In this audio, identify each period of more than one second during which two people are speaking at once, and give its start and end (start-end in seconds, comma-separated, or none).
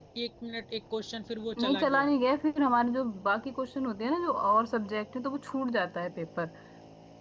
none